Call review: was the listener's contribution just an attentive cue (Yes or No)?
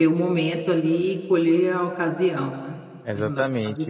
No